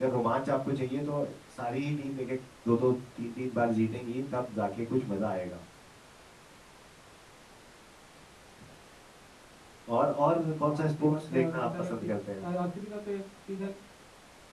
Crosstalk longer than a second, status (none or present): present